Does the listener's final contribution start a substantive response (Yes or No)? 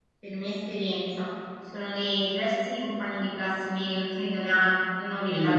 Yes